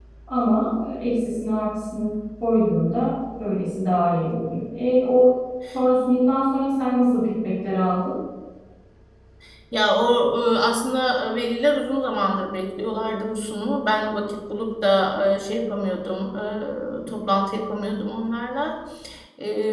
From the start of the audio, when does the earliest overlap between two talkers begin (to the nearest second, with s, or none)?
none